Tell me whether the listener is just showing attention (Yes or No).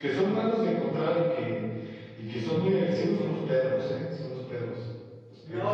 No